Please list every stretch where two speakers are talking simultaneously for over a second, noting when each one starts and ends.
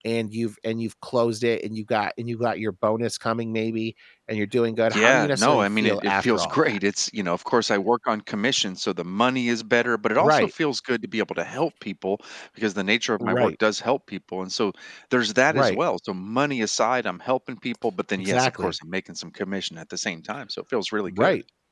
4.9-6.8

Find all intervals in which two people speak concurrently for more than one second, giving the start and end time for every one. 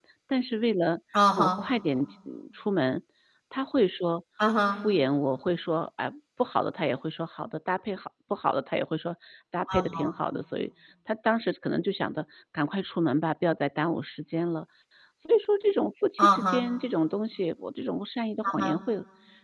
none

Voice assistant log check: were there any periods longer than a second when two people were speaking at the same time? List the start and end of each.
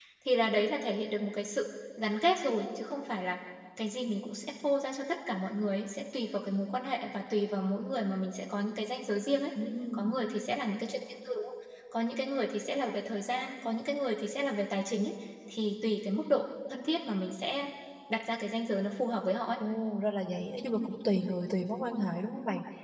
none

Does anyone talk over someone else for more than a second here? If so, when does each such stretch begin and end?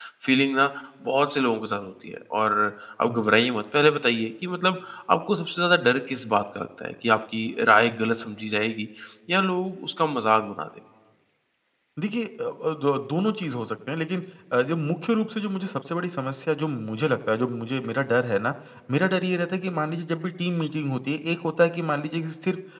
none

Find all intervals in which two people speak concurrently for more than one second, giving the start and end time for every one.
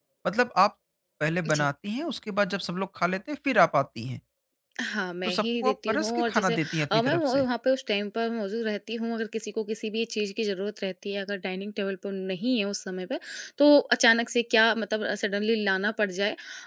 5.2-7.5

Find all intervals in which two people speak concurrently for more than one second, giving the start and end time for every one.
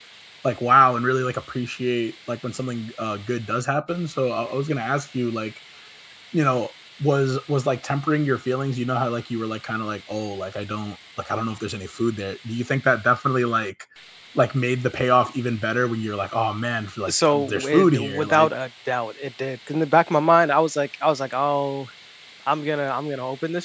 17.1-18.5

